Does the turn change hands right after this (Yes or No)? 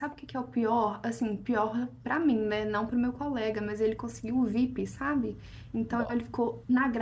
No